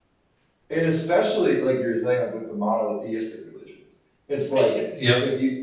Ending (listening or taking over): listening